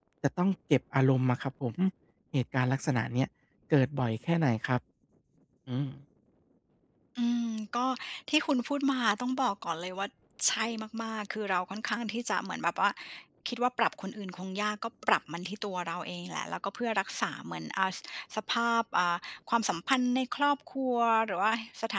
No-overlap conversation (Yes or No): Yes